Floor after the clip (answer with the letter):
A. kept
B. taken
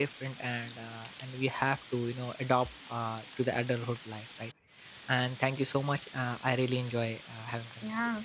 B